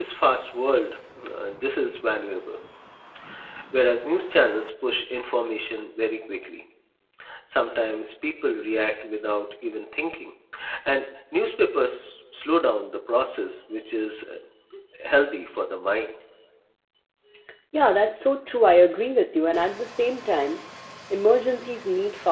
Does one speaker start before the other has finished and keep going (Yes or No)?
No